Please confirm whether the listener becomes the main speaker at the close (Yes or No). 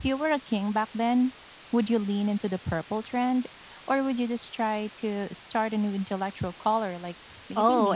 Yes